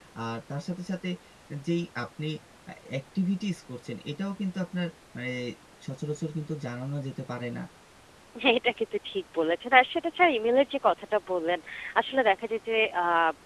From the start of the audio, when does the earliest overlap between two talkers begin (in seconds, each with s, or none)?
none